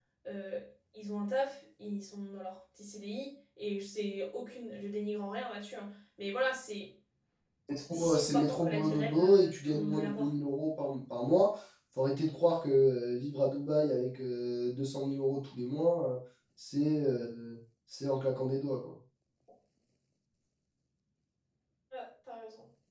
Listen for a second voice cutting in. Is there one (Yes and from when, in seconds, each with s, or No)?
Yes, from 7.9 s